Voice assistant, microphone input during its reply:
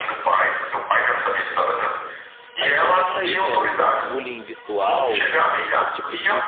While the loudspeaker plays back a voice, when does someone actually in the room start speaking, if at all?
2.6 s

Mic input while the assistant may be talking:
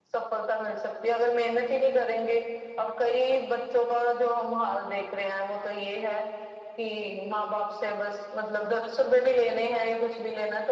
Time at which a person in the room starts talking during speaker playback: none

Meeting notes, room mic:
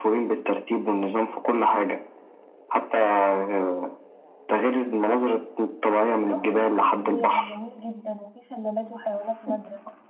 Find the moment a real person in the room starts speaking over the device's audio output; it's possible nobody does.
6.3 s

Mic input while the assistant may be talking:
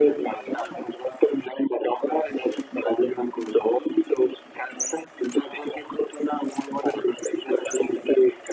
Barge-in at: none

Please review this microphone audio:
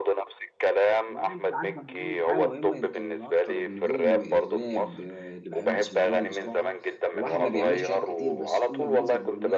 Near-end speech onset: 1.1 s

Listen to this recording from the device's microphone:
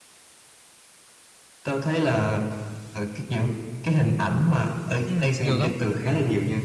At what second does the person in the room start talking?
5.0 s

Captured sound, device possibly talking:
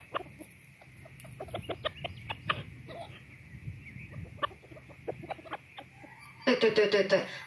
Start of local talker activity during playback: 6.4 s

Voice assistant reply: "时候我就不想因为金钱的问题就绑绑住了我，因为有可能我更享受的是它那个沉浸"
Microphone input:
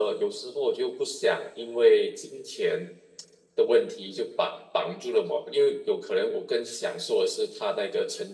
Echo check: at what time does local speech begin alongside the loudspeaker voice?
none

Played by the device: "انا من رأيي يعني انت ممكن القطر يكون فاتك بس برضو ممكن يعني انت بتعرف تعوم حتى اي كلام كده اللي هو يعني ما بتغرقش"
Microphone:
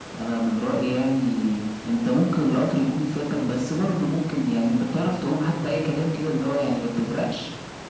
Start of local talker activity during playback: none

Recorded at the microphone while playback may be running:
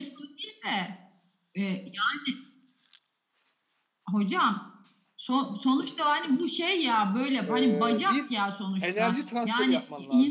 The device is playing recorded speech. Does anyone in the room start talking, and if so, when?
7.5 s

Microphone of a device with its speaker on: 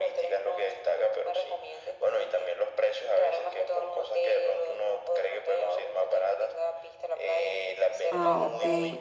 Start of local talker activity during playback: 8.1 s

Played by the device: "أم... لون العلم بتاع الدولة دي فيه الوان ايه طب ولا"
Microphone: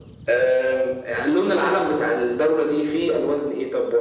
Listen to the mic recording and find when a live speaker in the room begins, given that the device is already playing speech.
none

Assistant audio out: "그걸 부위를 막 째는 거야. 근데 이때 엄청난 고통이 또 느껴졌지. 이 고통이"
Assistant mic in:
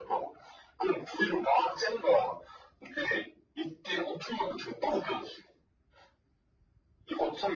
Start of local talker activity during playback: none

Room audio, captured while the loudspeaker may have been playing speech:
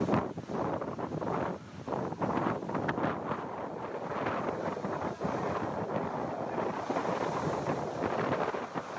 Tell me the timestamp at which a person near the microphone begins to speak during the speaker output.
none

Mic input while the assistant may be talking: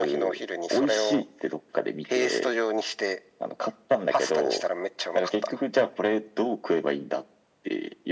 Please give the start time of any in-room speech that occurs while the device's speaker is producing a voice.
none

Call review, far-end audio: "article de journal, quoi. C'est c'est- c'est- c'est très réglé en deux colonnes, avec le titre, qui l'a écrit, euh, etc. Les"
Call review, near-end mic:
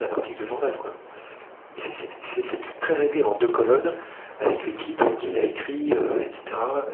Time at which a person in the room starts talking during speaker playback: 4.8 s

